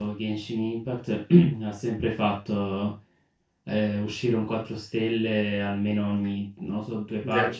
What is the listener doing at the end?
listening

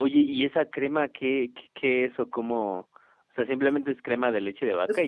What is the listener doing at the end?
taking over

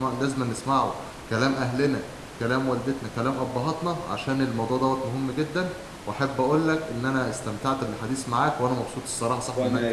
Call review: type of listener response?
taking over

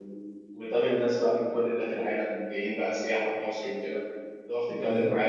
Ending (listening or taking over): listening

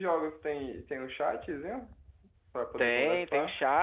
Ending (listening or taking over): taking over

